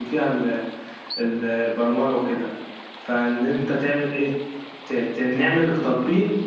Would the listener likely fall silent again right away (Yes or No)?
Yes